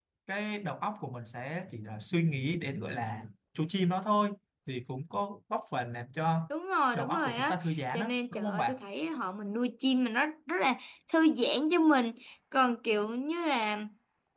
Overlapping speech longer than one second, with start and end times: 6.9-8.8

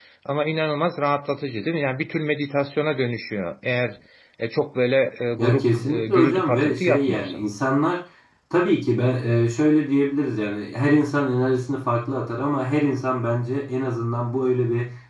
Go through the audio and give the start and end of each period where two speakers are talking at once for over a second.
5.4-7.4

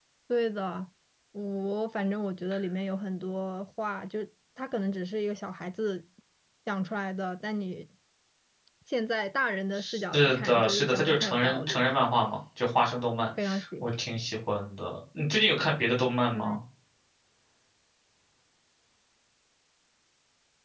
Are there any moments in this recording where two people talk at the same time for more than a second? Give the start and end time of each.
9.9-12.0

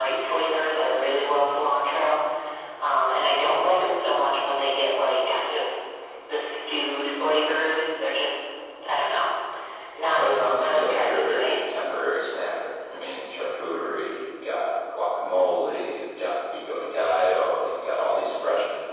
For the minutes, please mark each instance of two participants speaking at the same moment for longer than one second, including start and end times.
10.1-11.6

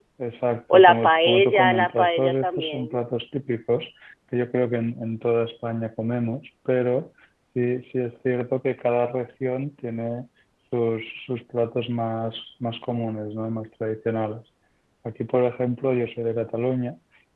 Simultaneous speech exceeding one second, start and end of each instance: 0.7-3.0

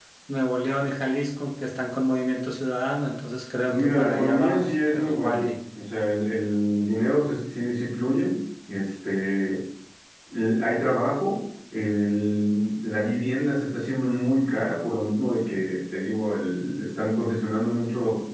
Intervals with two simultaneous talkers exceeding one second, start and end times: 3.7-5.4

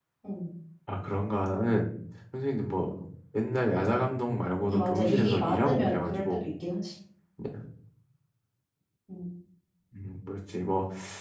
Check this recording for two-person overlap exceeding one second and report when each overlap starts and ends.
4.7-6.4

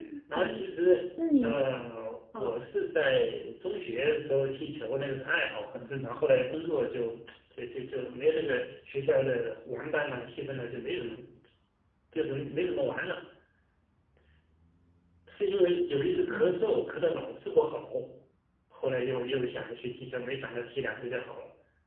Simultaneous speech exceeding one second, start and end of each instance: none

